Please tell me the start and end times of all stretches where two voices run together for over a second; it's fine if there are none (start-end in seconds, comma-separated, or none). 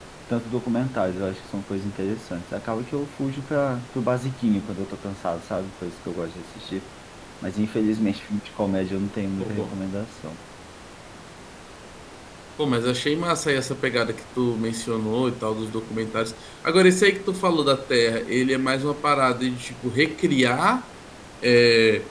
none